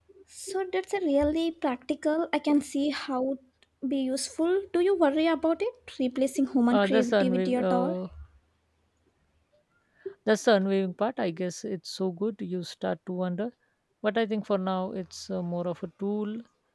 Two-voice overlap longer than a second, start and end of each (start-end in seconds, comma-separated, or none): 6.7-7.9